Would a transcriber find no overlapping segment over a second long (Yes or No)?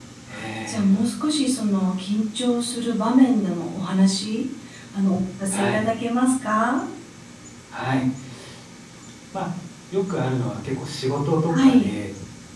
Yes